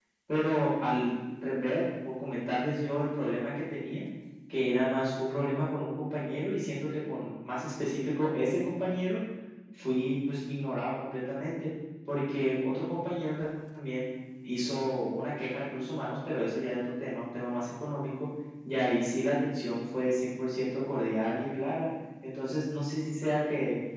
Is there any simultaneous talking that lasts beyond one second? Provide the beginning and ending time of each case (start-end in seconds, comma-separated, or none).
none